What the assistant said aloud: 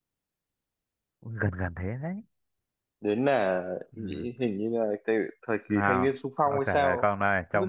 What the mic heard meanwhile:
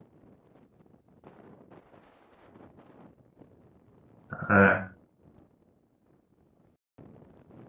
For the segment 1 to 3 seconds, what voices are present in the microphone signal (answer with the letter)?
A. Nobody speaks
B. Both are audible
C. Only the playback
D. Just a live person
A